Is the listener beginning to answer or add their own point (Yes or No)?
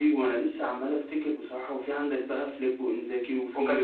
No